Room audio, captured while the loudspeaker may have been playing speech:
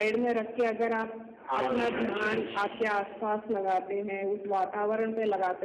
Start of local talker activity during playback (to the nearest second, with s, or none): 1 s